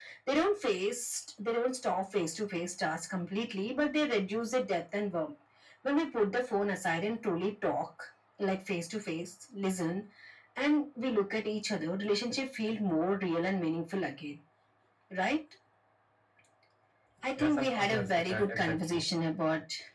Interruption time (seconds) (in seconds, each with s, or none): 17.4 s